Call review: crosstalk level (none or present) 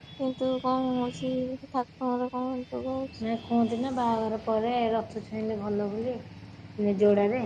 none